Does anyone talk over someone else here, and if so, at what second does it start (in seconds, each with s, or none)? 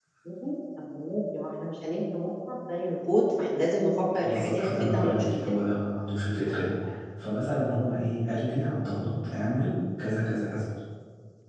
4.2 s